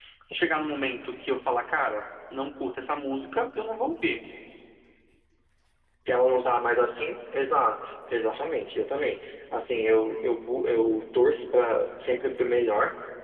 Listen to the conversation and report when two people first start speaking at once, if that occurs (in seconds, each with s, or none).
none